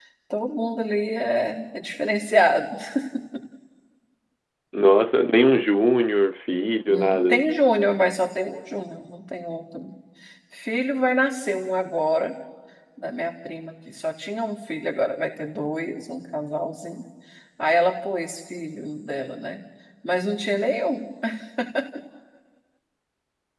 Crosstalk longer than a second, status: none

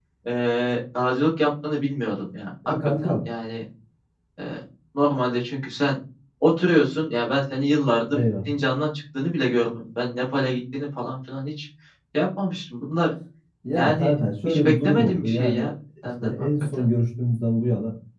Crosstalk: present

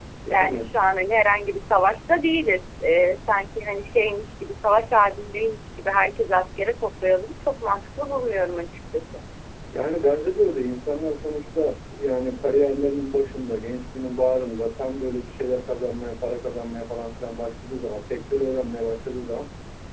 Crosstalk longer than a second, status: none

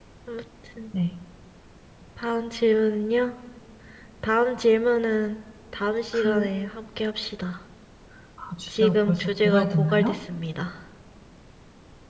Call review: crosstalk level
present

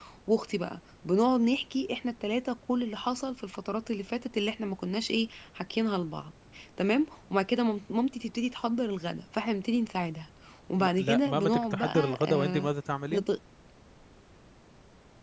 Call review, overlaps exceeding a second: present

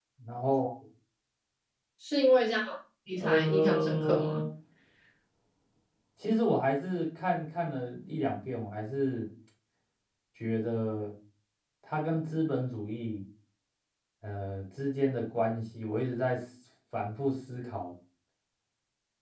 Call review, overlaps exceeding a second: present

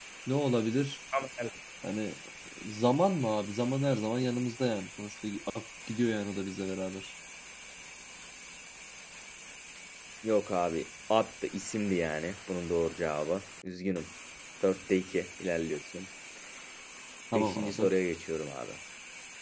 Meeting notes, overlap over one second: none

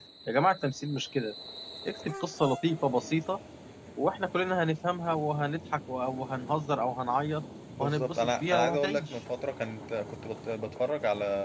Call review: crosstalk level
present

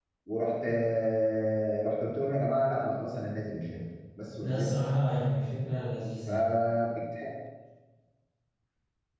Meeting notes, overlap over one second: none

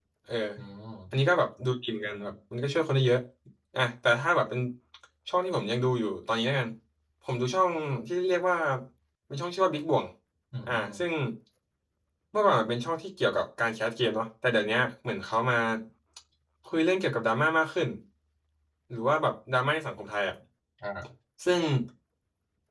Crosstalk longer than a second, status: none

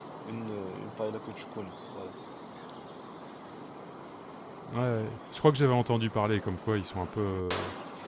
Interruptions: none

